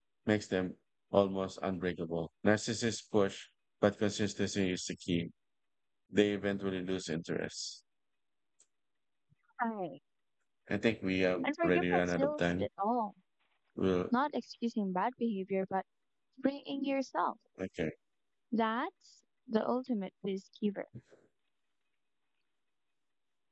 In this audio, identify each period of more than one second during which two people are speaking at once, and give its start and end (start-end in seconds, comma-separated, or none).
11.4-12.6